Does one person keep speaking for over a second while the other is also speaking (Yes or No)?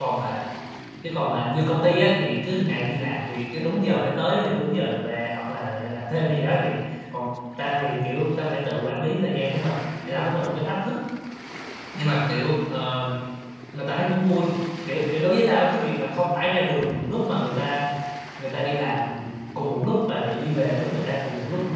No